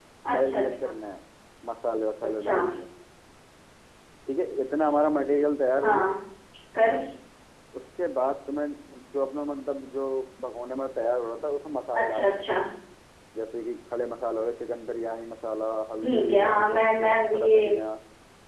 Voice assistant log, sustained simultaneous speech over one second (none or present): present